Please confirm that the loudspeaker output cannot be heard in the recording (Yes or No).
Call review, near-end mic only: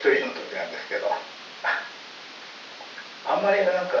No